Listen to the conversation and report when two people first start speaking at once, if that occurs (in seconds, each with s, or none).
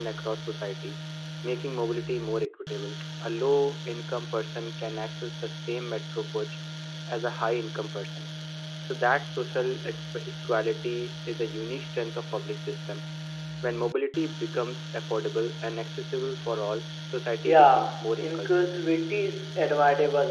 17.4 s